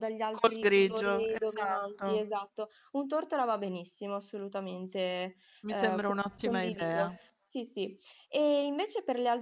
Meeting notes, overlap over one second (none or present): present